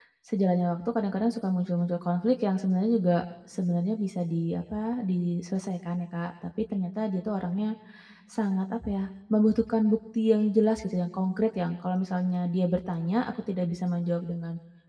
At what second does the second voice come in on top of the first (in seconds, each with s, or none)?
none